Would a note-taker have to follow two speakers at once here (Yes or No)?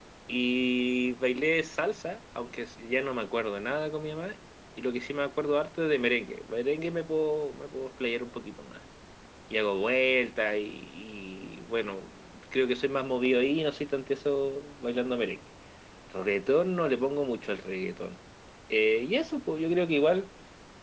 No